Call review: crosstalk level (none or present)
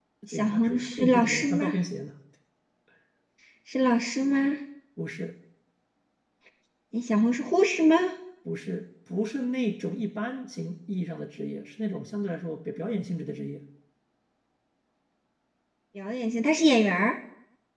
present